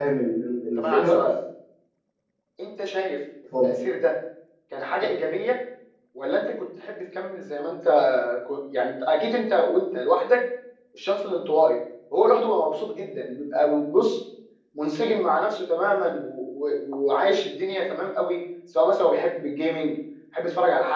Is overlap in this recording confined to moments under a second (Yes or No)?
Yes